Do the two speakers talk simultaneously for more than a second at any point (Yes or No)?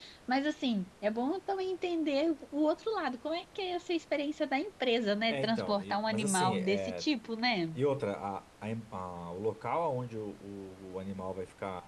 Yes